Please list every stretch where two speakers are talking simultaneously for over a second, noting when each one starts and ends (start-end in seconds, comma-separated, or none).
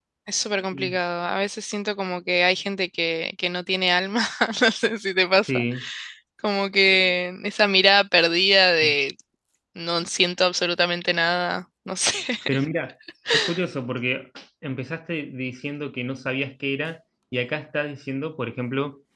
none